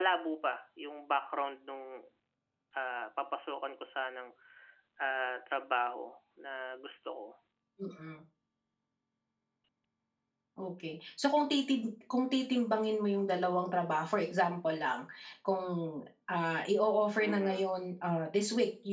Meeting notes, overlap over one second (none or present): none